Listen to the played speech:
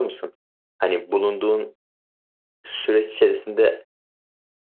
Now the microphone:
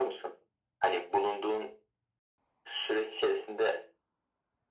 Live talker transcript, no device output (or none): none